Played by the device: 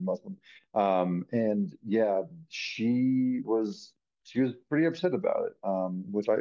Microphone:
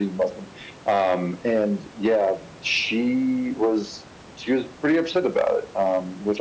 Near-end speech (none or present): none